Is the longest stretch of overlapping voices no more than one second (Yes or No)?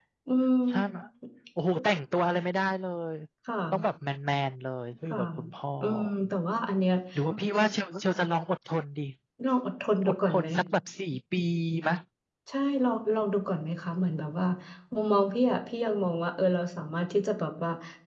Yes